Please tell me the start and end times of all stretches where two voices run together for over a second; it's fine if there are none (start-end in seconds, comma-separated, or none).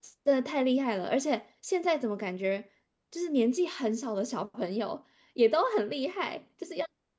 none